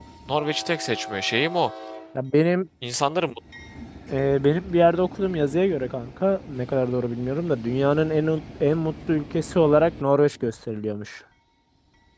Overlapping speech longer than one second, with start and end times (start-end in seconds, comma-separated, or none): none